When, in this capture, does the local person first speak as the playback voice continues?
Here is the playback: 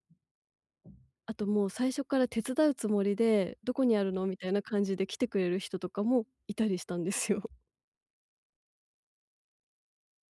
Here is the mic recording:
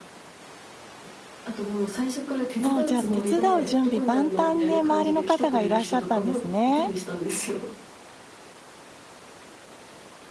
2.6 s

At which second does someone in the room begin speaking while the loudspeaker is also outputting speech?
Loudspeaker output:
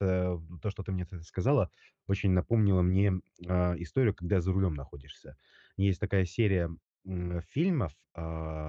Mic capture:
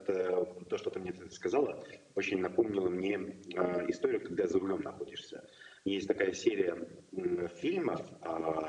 none

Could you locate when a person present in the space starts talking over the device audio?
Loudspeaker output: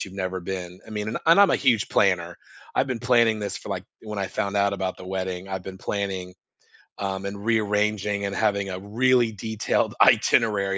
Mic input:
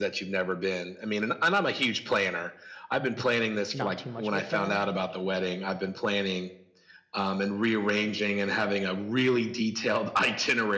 3.7 s

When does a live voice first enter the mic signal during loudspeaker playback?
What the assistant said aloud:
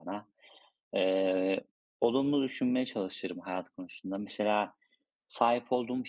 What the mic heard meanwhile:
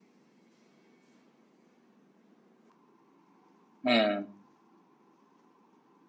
3.9 s

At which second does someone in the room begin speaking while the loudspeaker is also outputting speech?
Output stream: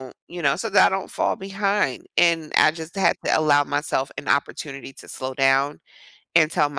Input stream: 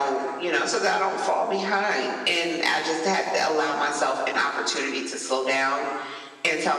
none

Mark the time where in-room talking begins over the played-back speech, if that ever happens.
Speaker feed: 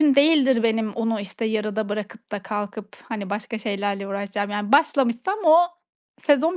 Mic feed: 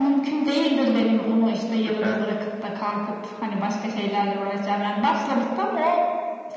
1.7 s

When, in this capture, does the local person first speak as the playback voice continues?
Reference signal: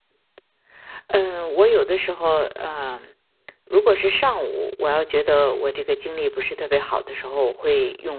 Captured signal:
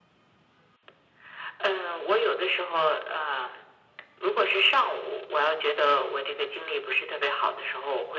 none

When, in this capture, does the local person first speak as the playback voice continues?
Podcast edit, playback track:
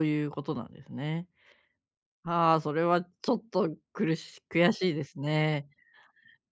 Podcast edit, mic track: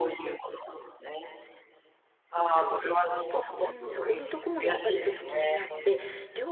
2.4 s

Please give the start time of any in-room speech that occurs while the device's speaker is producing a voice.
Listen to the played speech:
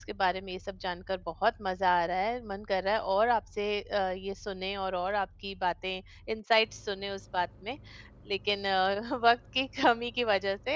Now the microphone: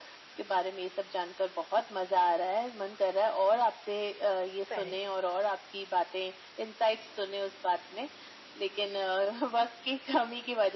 4.7 s

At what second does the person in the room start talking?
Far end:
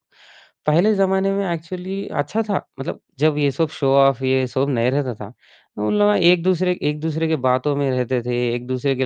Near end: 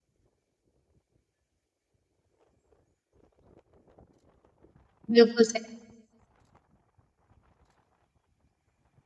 5.2 s

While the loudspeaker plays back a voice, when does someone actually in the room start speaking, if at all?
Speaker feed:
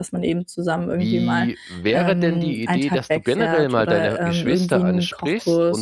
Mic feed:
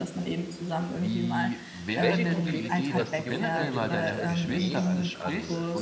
1.9 s

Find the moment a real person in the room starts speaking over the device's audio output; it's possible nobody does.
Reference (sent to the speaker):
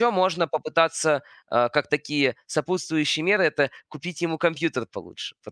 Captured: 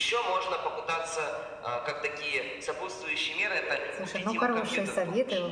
3.9 s

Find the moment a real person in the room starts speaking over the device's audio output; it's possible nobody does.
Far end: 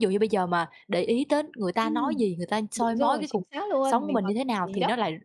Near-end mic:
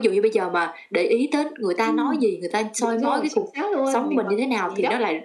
none

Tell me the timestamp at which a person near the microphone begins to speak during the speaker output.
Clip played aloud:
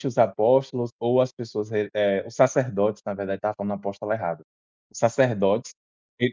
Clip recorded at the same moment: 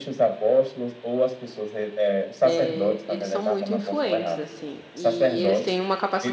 2.4 s

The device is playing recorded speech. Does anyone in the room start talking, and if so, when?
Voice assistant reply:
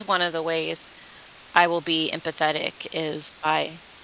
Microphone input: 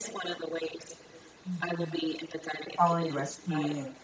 1.5 s

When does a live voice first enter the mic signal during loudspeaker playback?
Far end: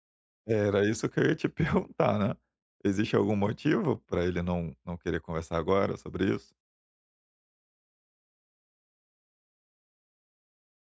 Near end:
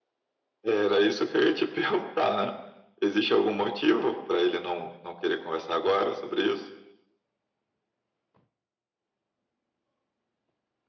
none

